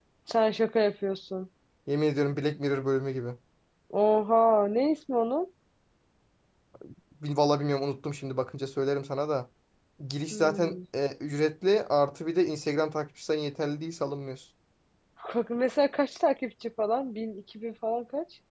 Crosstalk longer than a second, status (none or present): none